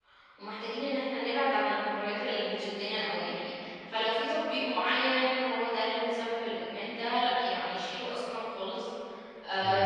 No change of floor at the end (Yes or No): Yes